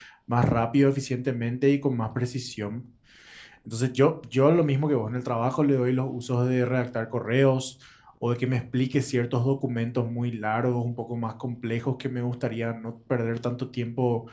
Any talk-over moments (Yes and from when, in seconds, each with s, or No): No